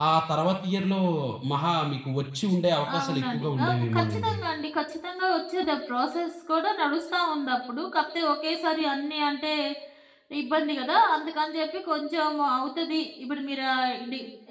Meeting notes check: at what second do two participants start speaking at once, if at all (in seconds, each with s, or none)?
2.9 s